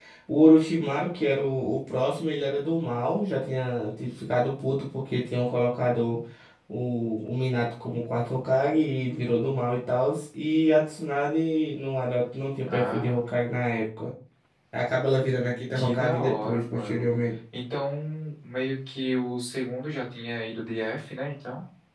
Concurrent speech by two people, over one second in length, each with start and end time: 15.8-17.1

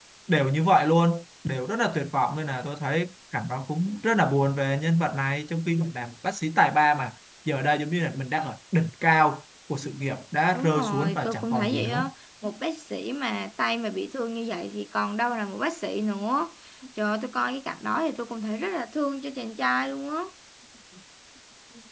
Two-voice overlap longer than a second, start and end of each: 10.5-12.0

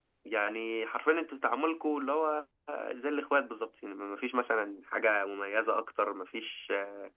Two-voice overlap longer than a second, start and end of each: none

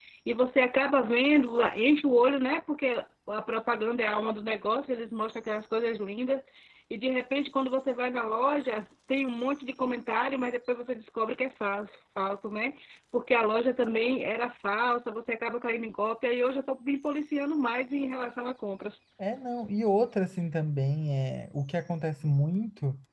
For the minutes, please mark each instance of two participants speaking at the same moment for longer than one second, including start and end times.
none

